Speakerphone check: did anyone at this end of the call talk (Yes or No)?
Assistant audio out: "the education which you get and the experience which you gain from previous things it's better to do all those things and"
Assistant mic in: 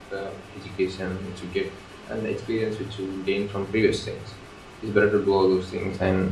No